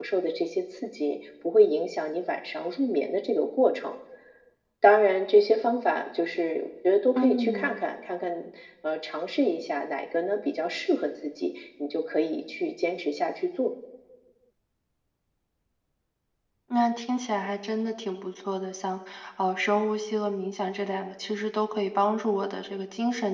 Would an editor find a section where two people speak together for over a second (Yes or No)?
No